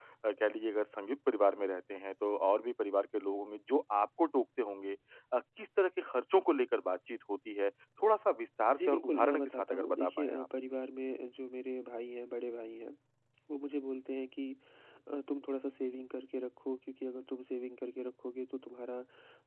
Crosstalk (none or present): present